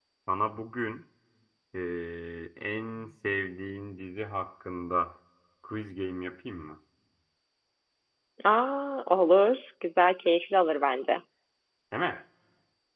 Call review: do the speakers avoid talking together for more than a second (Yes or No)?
Yes